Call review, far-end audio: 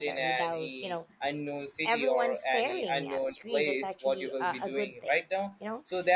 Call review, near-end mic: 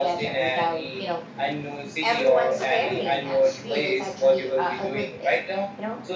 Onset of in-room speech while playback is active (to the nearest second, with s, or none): none